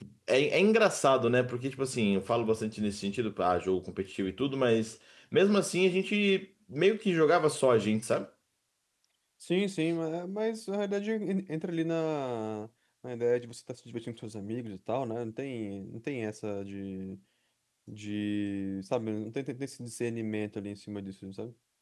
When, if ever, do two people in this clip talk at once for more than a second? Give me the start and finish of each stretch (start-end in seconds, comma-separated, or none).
none